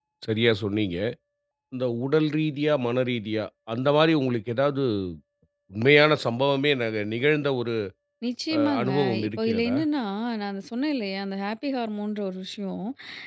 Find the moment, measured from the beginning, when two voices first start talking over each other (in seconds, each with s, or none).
8.6 s